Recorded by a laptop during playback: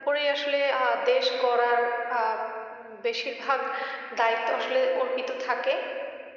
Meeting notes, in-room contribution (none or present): none